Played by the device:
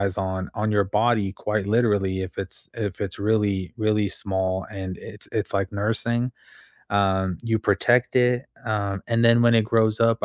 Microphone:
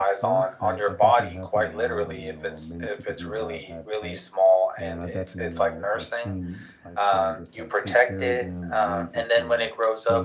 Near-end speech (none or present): present